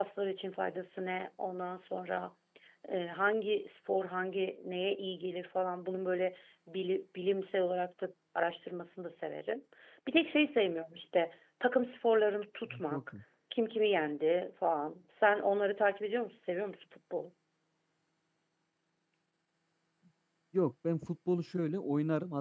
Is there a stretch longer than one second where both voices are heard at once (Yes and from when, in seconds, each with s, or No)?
No